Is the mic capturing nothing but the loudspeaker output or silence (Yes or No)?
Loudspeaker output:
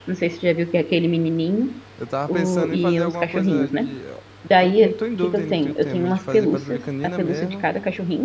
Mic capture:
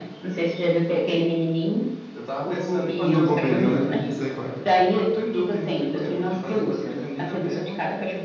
No